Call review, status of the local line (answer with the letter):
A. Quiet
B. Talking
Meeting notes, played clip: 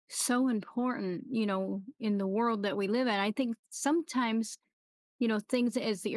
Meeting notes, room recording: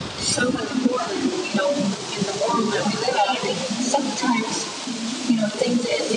A